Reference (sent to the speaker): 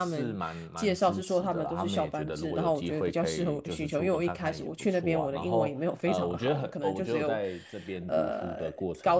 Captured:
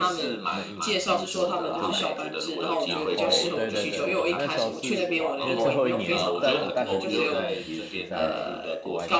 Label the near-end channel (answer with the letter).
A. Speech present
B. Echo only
A